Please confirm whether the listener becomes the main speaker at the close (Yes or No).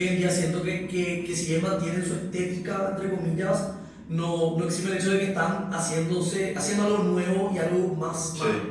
No